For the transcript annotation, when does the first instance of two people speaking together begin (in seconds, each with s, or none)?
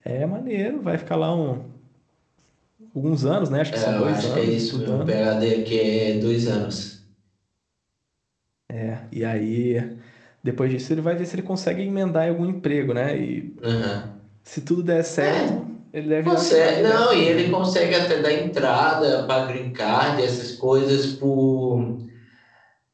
3.7 s